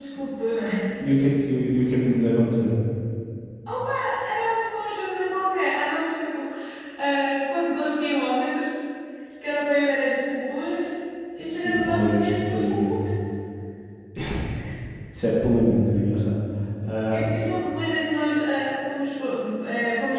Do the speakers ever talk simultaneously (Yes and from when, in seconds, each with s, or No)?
Yes, from 11.6 s